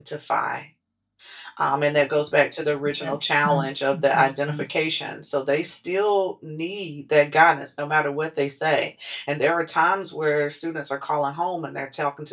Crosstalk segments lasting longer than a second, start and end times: 3.0-4.7

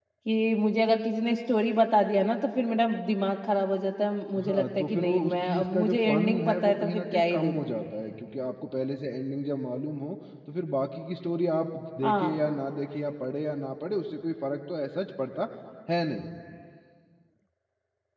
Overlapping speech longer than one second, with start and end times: 4.4-7.5

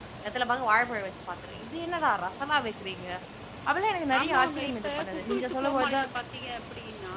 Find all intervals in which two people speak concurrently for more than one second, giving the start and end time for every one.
4.2-6.1

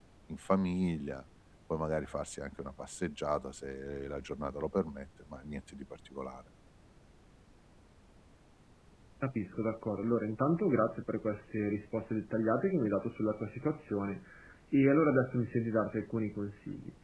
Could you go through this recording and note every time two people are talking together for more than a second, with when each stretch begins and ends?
none

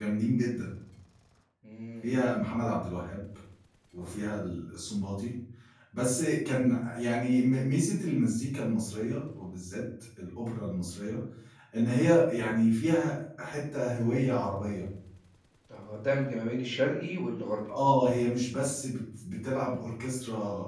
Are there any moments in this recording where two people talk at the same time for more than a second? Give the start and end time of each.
none

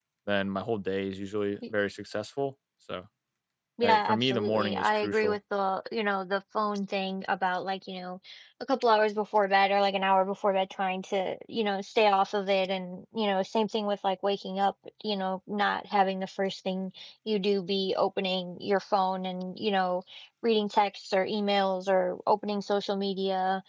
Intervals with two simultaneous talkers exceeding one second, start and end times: 3.8-5.4

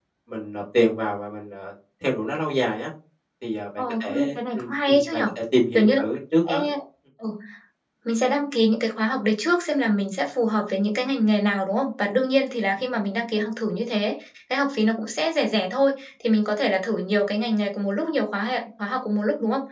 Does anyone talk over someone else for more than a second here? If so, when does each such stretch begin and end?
3.8-5.3

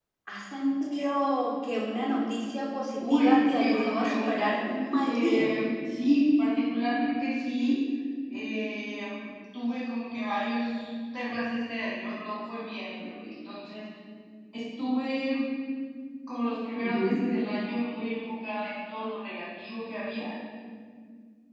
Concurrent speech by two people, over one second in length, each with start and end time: 3.0-4.5

